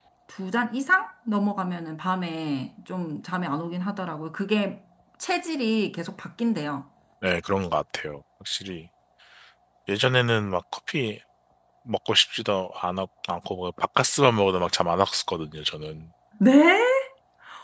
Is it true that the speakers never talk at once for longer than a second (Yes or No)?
Yes